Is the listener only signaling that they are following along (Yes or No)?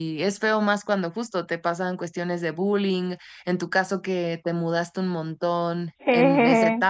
Yes